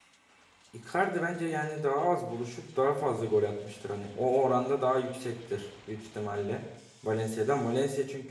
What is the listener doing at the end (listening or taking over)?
listening